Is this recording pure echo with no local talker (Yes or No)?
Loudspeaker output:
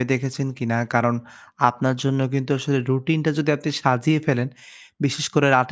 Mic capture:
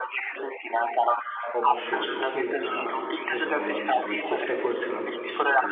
No